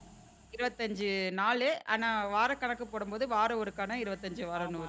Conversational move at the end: taking over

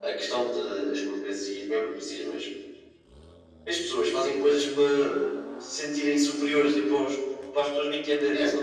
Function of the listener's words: taking over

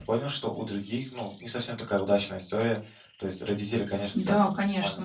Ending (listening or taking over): taking over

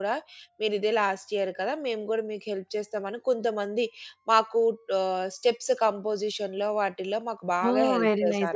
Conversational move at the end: taking over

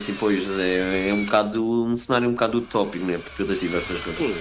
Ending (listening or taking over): taking over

